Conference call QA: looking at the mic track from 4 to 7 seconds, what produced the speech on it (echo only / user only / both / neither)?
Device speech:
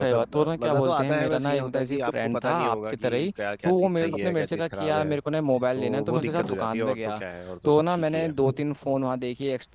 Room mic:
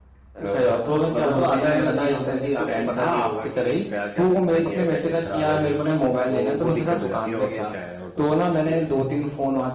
echo only